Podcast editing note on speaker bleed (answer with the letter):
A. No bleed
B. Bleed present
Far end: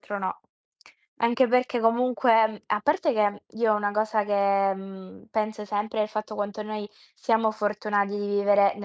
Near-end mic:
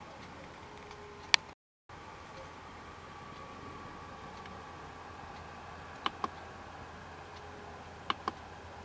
A